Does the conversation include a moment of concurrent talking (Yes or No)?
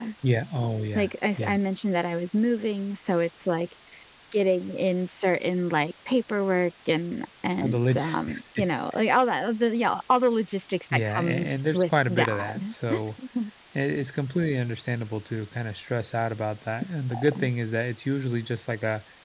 Yes